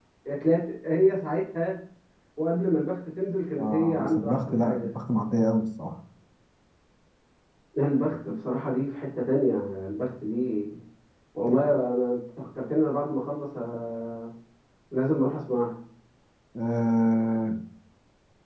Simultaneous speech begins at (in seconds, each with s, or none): 3.6 s